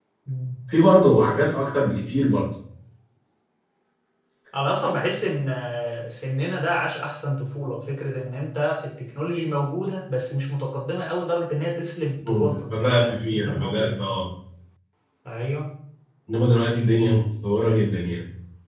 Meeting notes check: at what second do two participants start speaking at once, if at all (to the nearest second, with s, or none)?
12 s